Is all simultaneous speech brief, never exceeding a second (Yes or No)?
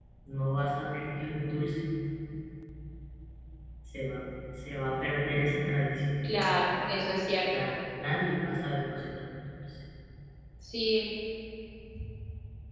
Yes